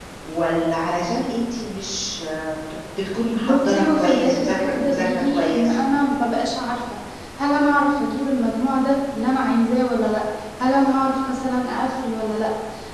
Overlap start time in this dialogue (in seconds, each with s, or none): 3.4 s